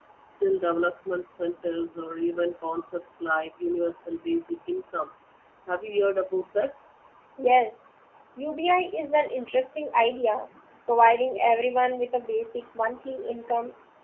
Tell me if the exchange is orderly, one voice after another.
Yes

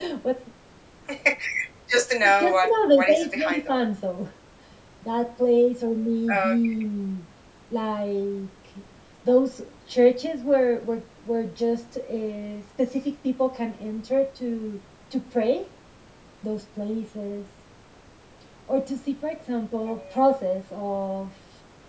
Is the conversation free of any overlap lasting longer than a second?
No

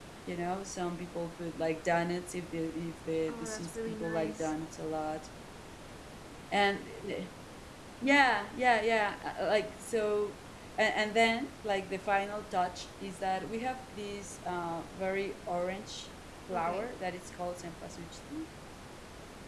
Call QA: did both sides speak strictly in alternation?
No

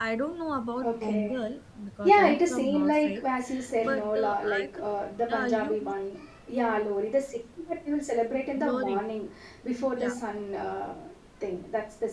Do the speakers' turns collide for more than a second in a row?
Yes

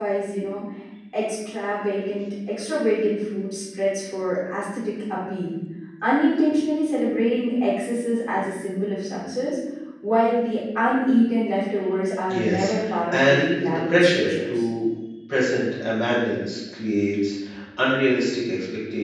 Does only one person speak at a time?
No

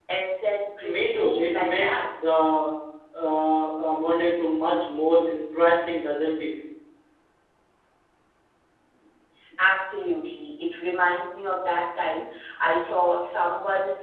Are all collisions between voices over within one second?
No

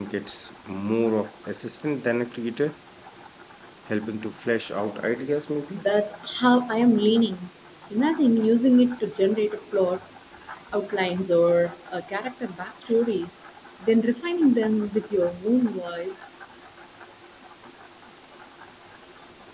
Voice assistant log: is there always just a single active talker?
Yes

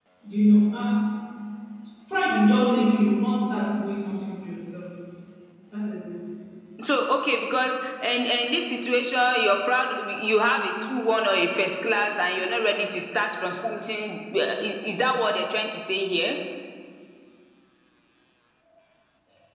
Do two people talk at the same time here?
No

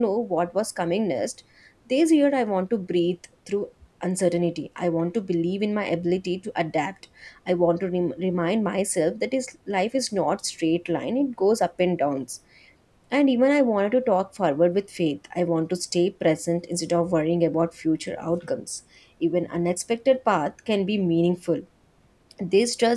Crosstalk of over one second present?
No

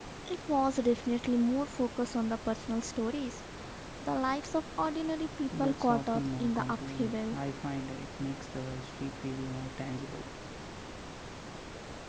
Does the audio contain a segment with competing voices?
Yes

